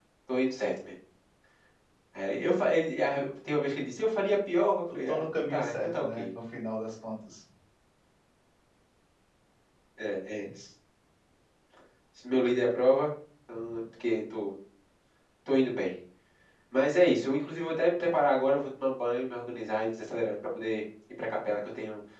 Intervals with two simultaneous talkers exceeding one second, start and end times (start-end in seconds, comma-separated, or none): 5.1-6.3